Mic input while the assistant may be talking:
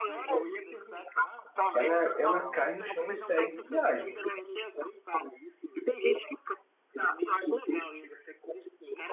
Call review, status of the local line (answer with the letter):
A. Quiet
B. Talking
B